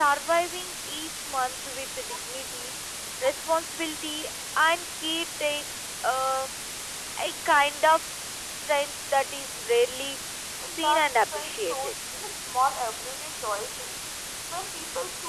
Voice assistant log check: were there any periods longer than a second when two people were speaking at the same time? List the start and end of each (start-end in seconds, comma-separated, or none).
10.7-11.9